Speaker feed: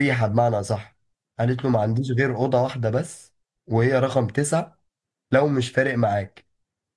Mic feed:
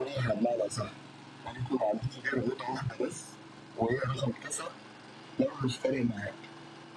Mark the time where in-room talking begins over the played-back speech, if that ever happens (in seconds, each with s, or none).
none